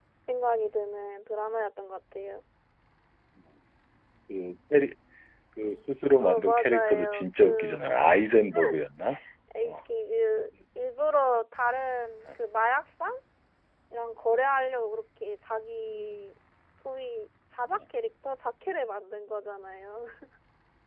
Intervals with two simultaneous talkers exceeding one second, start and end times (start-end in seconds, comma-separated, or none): 6.2-7.8